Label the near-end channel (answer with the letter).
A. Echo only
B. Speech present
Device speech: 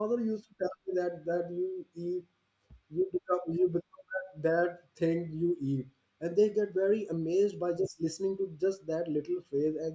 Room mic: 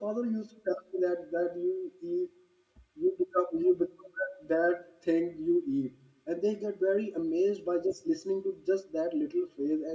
A